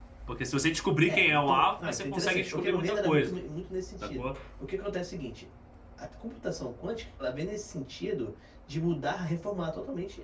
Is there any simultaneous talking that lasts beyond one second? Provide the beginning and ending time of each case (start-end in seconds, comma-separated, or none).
1.1-3.4